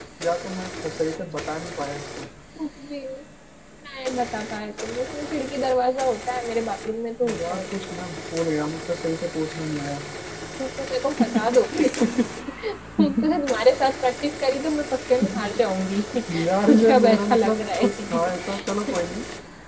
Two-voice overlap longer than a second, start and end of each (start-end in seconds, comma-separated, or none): 16.7-18.6